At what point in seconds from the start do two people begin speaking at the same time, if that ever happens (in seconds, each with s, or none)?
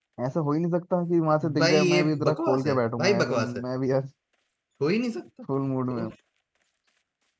1.6 s